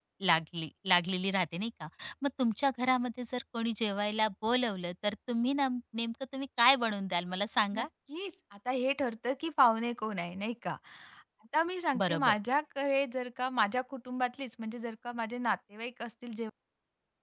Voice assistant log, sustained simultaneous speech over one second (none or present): none